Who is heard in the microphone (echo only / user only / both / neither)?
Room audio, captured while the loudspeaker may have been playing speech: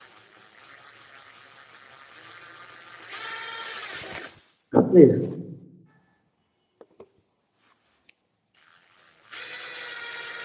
user only